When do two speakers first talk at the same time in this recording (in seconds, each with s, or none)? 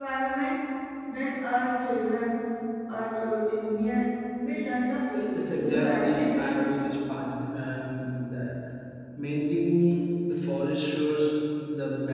5.4 s